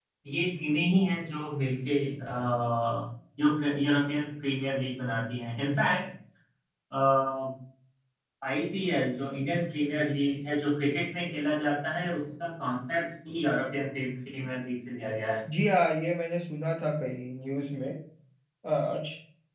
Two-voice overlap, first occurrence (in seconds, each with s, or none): none